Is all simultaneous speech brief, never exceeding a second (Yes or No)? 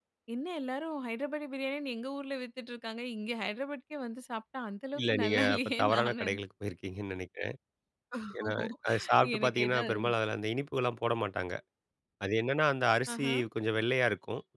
No